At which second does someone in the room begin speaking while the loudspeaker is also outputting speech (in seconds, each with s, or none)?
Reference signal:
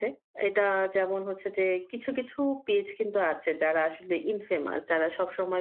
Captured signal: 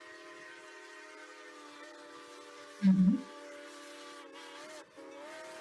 2.8 s